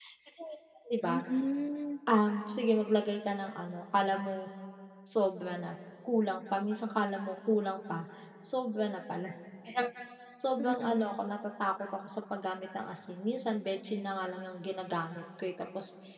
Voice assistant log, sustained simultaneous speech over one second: none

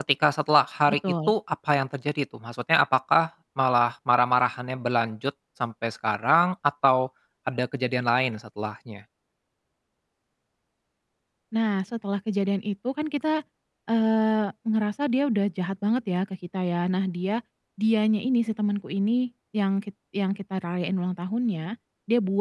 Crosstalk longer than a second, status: none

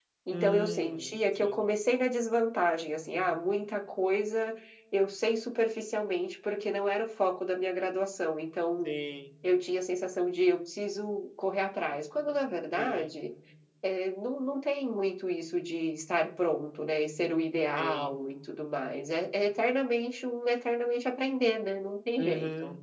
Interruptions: present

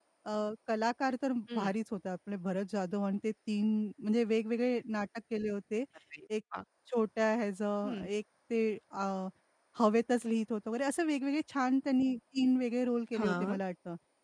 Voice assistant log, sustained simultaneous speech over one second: none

